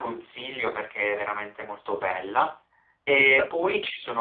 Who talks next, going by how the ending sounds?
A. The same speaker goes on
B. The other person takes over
A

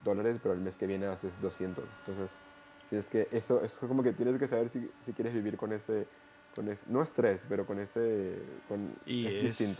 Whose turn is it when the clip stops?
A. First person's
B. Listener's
B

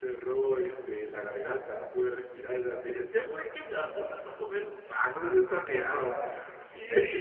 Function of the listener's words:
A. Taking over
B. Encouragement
B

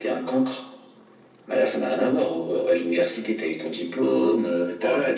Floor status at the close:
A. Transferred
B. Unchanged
A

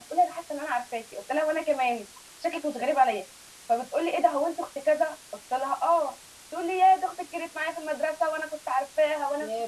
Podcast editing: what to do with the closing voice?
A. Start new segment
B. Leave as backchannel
B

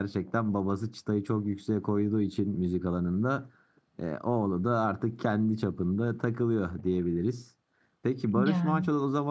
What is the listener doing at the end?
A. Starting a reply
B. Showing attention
B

